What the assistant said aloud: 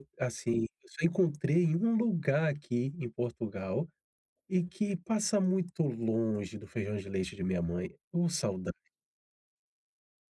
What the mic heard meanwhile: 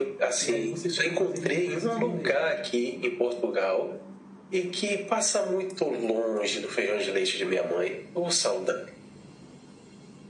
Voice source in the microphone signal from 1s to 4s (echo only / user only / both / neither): both